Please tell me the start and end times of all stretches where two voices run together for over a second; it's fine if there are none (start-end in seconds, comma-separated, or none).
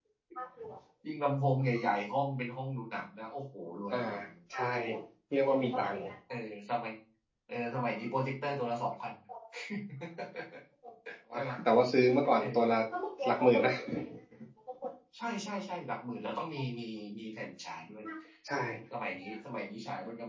none